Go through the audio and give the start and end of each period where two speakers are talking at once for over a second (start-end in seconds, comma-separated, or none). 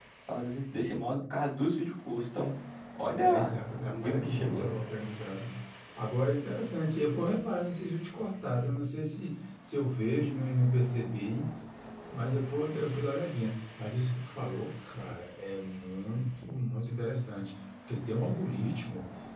3.1-4.8